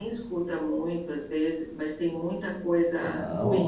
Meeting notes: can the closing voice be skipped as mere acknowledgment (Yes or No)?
No